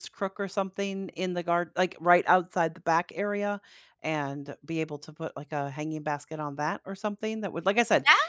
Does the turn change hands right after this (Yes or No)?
Yes